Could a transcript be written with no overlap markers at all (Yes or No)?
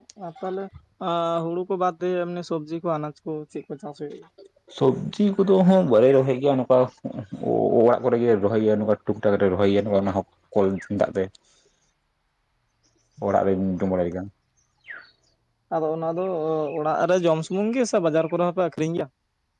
Yes